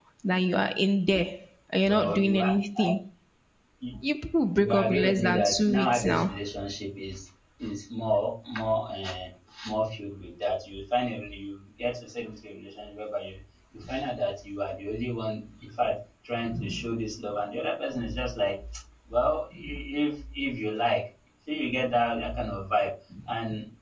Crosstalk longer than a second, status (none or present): present